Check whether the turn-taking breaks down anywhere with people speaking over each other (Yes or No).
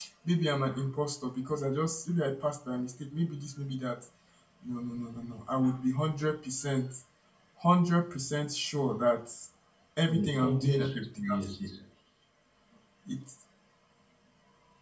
Yes